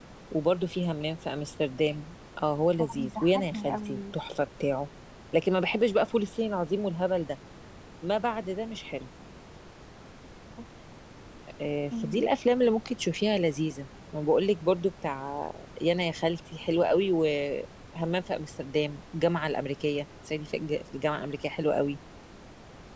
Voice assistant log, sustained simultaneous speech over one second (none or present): present